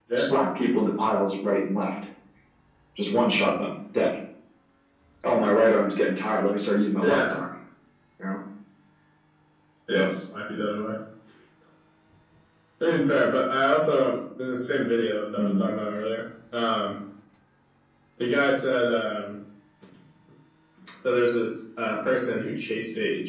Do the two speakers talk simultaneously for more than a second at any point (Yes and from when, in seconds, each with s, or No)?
No